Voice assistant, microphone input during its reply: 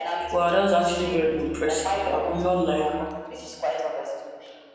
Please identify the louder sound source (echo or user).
user